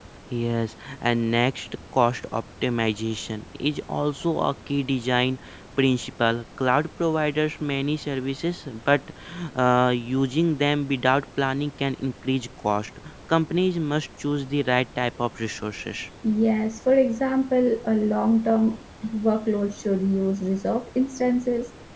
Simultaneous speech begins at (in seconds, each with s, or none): none